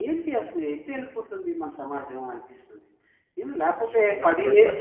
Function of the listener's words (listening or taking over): taking over